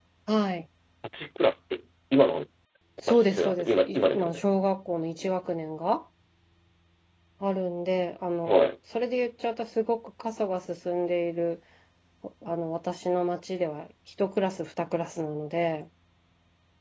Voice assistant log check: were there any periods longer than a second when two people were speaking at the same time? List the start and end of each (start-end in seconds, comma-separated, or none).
3.1-4.4